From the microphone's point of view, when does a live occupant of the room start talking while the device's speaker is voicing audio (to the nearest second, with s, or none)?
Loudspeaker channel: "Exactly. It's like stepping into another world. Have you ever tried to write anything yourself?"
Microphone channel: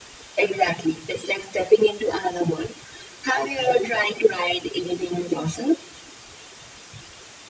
none